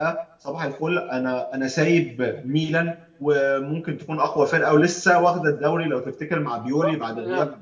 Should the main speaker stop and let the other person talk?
No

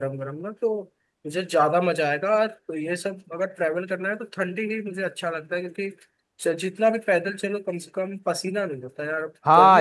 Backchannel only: No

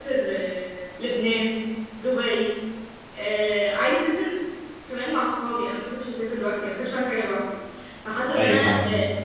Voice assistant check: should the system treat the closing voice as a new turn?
No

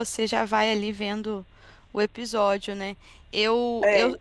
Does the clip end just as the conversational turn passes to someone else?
No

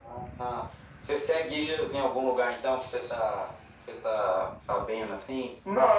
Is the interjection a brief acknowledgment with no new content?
No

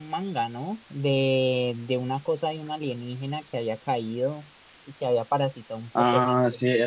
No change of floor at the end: No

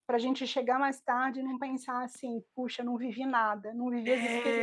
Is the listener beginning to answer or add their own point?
Yes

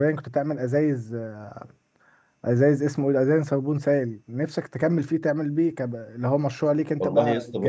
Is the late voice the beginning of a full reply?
Yes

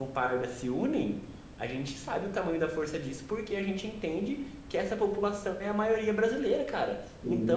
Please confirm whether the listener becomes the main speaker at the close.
No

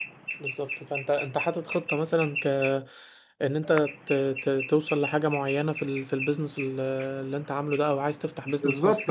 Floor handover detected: Yes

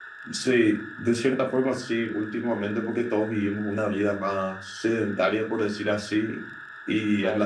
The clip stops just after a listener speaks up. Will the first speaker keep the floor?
Yes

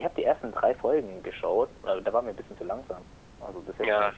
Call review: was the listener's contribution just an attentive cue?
Yes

